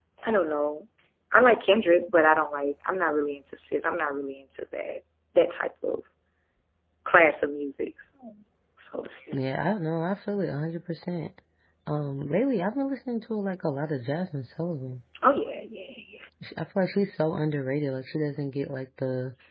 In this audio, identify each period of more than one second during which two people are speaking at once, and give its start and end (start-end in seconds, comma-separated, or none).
none